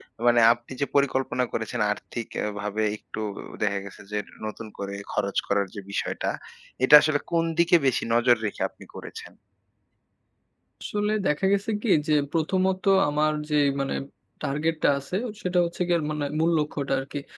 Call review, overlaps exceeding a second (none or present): none